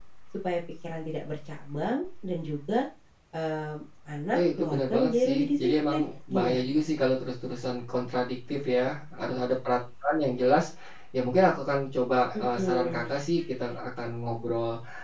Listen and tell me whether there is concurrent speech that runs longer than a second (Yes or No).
Yes